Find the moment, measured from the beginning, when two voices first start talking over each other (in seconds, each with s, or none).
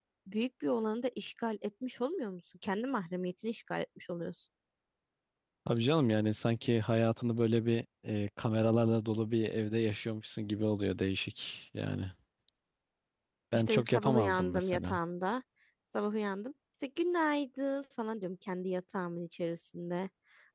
13.6 s